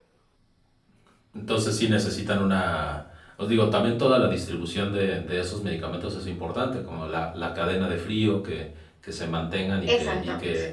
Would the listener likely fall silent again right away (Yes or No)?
Yes